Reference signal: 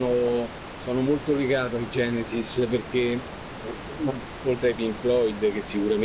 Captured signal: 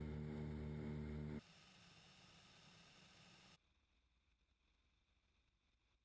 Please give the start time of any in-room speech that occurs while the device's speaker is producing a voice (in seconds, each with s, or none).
none